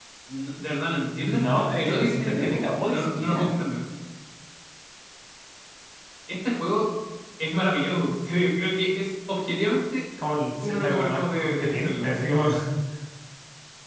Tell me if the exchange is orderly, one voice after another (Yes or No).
No